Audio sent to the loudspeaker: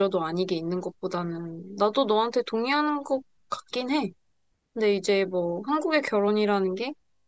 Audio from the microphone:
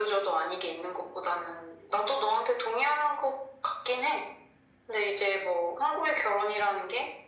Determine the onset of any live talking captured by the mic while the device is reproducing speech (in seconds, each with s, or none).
none